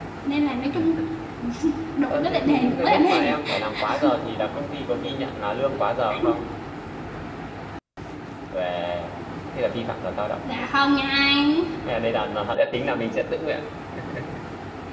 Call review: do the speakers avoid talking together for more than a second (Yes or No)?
No